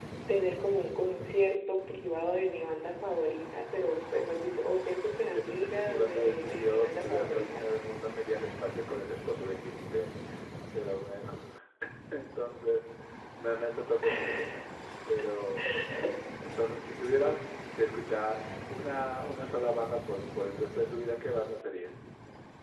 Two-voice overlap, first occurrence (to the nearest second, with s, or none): 5 s